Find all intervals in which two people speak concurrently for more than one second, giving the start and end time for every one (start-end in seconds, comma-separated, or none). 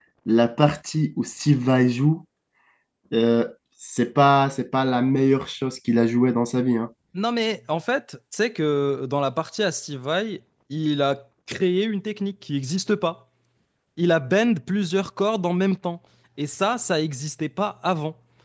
none